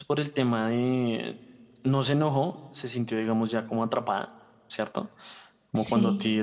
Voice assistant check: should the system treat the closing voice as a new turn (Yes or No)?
No